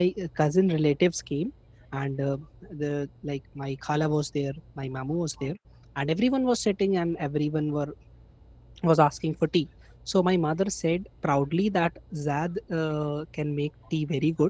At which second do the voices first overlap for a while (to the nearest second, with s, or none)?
none